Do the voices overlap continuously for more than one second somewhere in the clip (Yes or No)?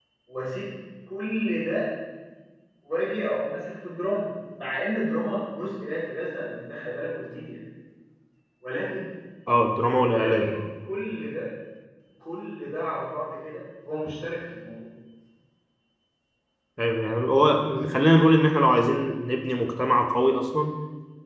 No